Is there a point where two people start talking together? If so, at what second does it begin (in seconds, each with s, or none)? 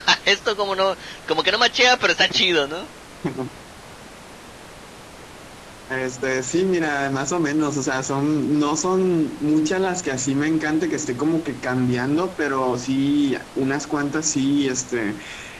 none